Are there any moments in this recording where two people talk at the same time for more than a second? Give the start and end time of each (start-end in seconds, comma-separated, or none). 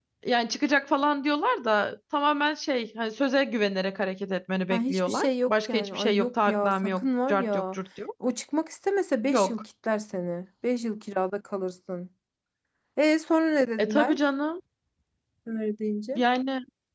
4.7-7.8